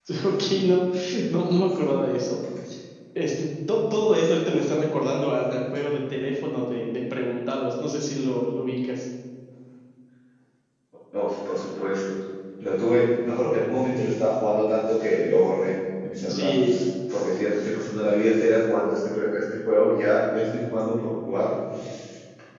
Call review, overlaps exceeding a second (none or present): none